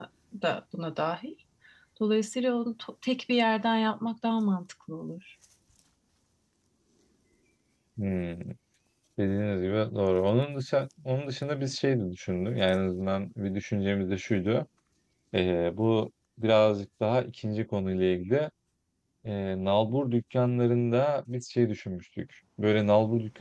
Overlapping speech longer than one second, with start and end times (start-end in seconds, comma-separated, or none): none